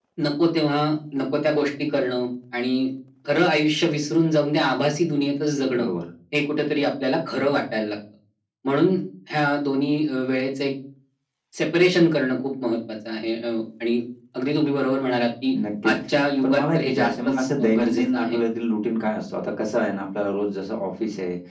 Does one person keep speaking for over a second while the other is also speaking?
Yes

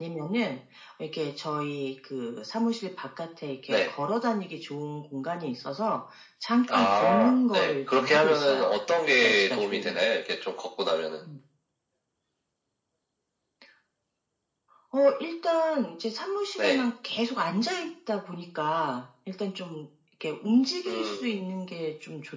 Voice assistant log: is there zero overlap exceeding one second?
No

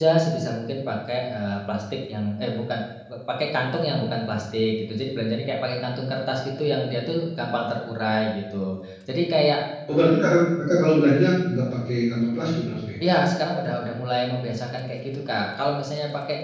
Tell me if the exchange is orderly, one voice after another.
Yes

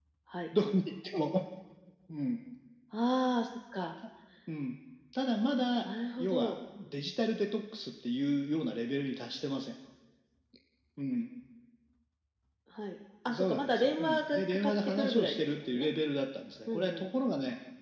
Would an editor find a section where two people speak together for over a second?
Yes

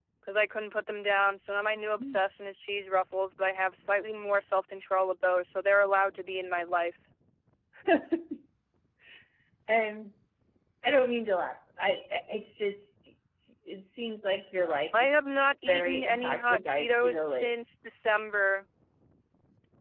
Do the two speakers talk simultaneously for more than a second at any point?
Yes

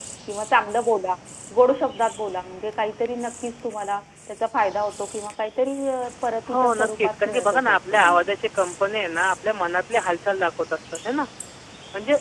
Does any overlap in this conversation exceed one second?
Yes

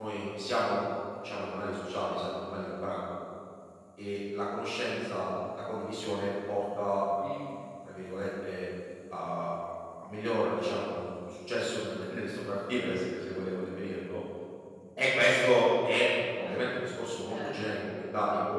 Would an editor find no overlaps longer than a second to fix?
Yes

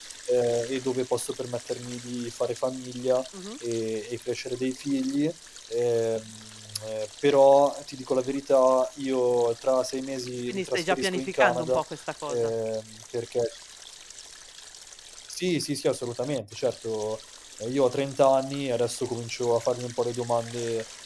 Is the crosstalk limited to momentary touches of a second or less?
No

